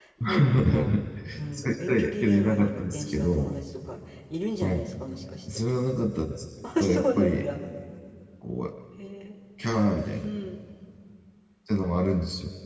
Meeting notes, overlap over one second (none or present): present